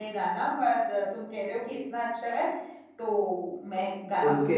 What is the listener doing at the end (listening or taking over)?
taking over